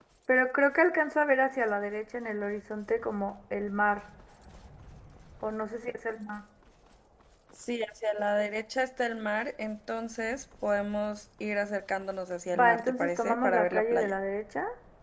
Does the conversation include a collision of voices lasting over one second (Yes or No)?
Yes